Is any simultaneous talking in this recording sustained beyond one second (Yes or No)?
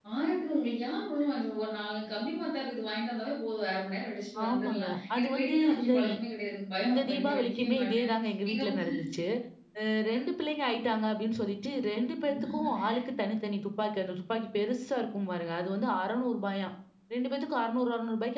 Yes